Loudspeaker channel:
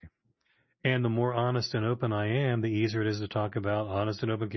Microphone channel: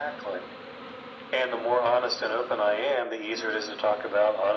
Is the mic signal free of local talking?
Yes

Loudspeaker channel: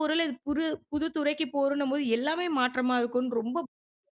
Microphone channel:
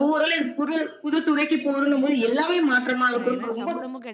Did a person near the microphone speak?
Yes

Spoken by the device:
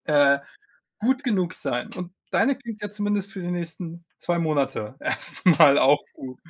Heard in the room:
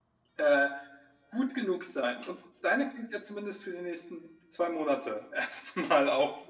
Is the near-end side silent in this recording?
Yes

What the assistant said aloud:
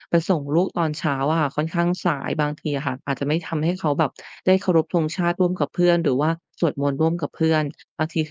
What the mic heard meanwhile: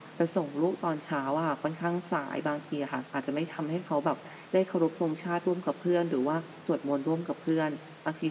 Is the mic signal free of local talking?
Yes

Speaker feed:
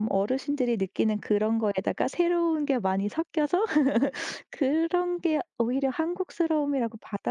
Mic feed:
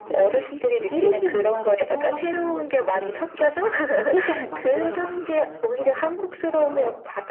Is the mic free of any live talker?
No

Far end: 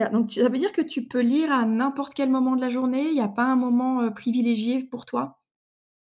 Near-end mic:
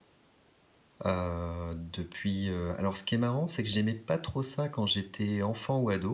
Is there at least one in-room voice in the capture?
Yes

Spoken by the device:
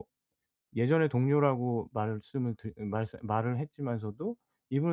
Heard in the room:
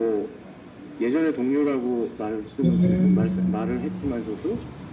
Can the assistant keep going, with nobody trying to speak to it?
No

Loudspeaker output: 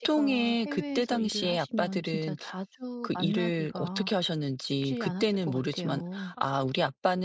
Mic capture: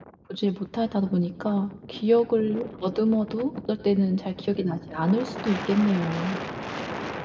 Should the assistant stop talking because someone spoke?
Yes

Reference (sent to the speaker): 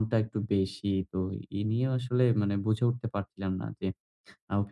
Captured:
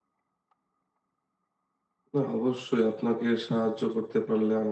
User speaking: Yes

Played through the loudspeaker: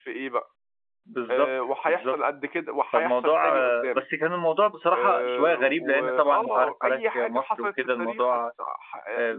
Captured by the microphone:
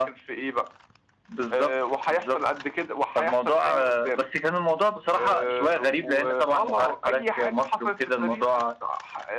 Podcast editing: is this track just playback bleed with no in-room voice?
Yes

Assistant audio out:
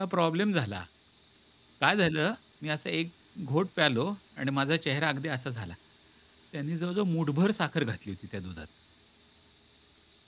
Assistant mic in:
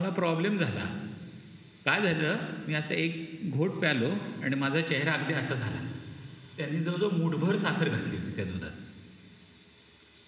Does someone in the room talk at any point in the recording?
No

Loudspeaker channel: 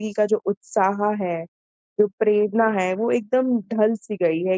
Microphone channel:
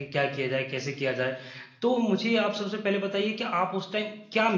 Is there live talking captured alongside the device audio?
Yes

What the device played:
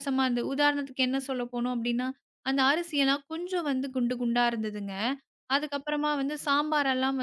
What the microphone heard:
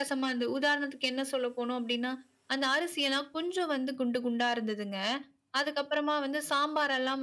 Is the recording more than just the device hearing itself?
No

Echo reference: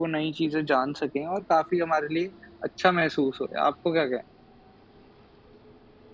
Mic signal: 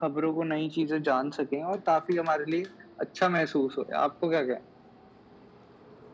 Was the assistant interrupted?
No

